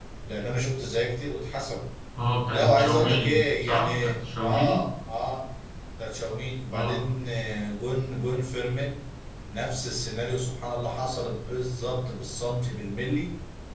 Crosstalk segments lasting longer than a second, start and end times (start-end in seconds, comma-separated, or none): 2.5-4.8